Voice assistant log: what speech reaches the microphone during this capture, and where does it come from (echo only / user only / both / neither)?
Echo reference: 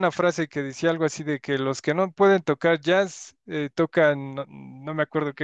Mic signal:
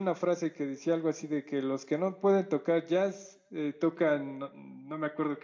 echo only